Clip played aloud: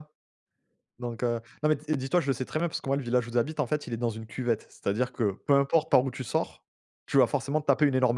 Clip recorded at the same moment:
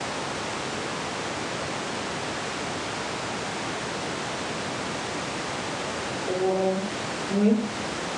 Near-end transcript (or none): Oh. Oui.